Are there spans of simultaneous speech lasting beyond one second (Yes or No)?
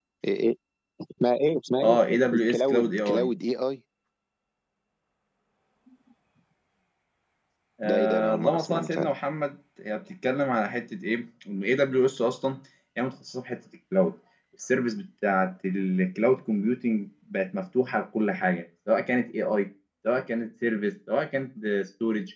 Yes